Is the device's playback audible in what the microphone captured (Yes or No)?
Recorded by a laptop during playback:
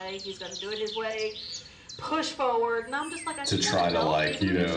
Yes